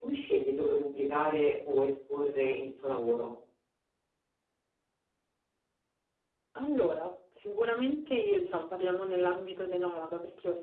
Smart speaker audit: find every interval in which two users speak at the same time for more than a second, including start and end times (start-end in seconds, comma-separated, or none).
none